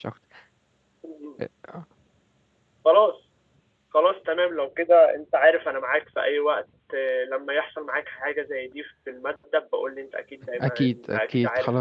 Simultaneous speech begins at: 10.6 s

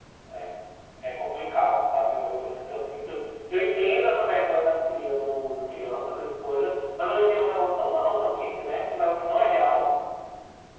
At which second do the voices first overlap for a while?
none

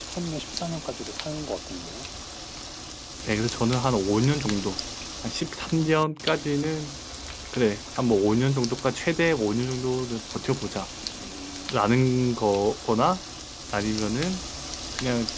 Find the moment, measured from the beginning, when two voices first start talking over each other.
none

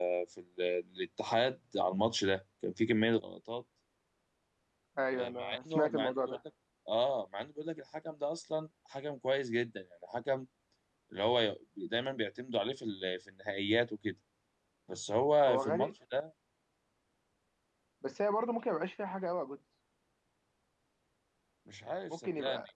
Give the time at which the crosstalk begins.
5.1 s

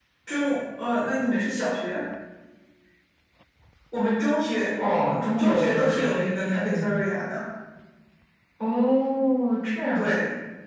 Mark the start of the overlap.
5.4 s

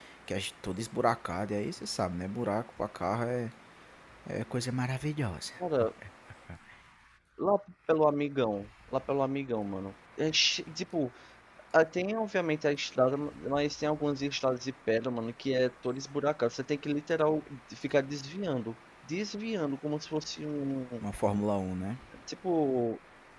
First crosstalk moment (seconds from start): none

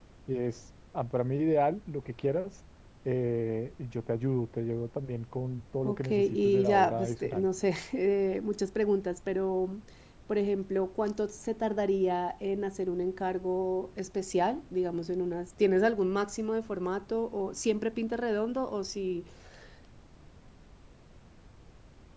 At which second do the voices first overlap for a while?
5.8 s

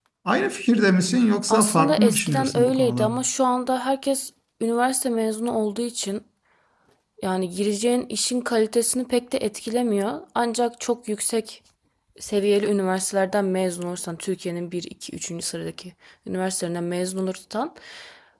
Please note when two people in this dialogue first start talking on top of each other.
1.5 s

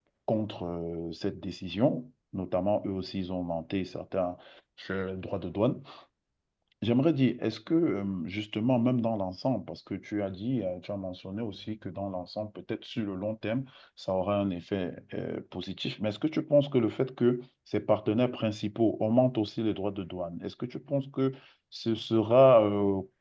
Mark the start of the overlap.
none

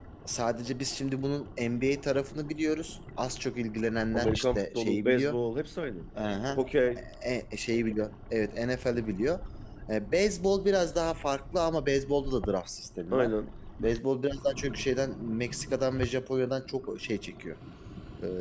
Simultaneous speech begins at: 4.1 s

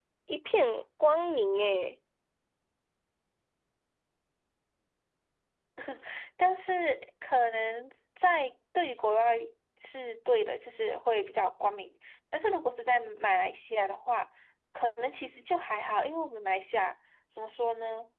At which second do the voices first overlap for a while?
none

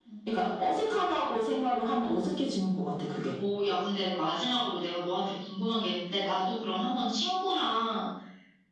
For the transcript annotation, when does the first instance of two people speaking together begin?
none

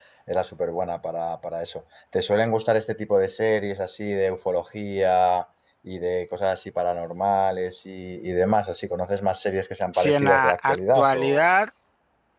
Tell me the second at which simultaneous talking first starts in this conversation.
9.9 s

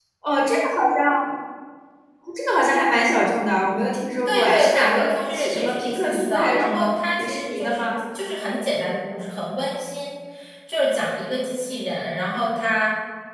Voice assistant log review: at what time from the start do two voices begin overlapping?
4.2 s

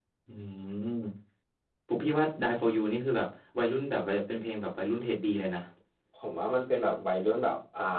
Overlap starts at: none

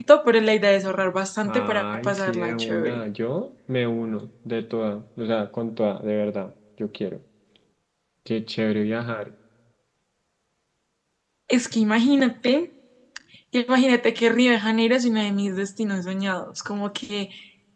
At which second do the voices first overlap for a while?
1.4 s

